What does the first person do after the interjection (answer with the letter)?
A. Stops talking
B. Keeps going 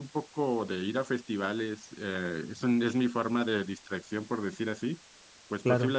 B